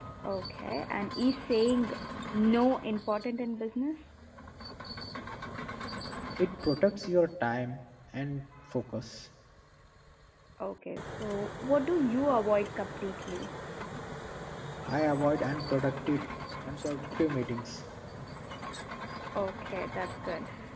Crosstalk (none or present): none